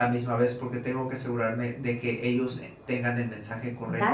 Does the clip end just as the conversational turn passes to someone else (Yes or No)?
Yes